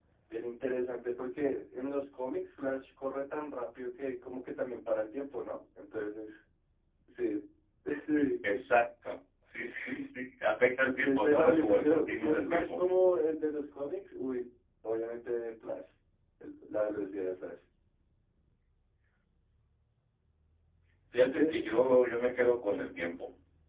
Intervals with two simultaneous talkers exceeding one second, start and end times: 10.9-12.8

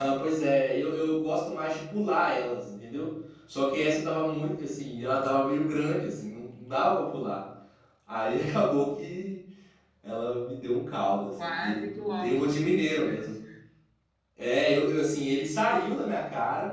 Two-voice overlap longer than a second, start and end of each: 11.4-13.3

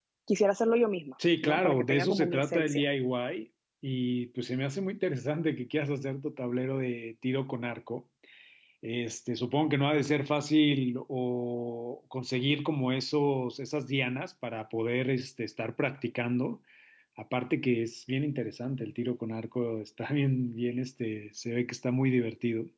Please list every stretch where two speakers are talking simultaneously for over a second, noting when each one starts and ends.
1.4-2.8

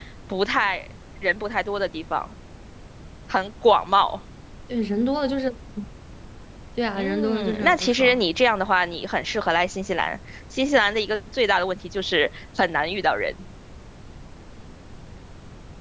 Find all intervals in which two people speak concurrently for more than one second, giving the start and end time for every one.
7.0-8.2

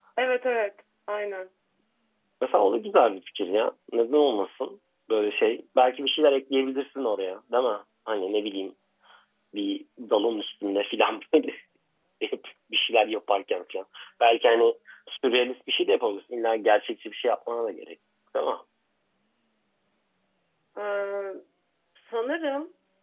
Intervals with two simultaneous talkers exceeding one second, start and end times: none

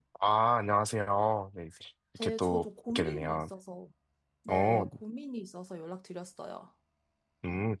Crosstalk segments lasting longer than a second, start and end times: 2.2-3.5

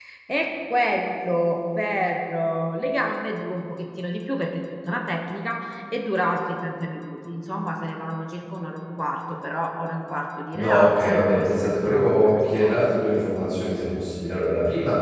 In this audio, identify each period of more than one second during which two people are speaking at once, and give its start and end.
10.5-12.9

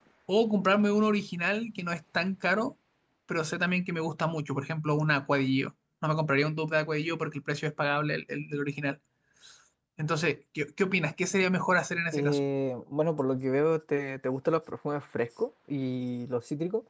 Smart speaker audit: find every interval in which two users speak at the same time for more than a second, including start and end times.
none

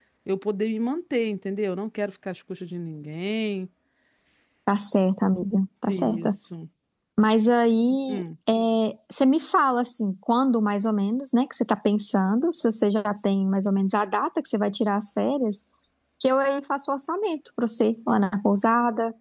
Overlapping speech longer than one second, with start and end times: none

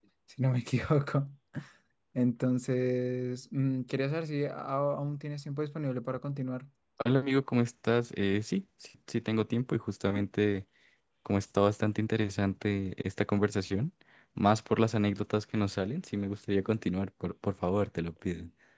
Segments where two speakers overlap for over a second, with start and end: none

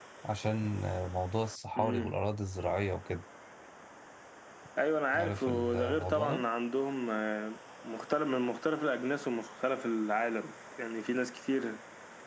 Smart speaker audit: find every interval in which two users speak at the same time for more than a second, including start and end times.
5.2-6.4

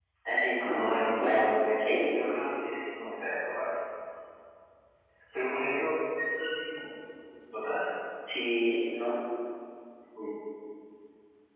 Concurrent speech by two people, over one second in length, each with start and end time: 0.8-2.2

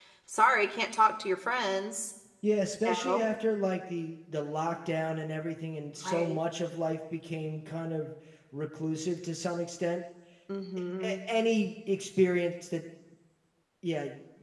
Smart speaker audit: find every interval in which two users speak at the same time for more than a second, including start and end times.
none

